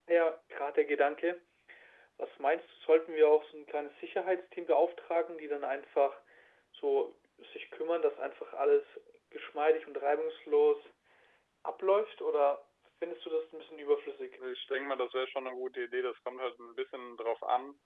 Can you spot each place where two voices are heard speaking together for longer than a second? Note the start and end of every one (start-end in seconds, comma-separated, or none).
none